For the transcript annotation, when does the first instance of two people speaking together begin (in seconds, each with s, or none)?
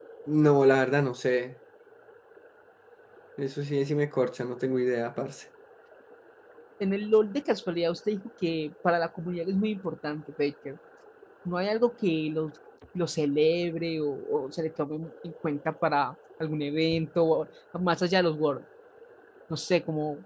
none